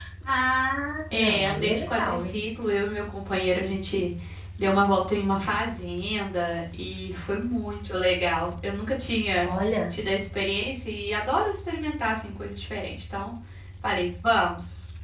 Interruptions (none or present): present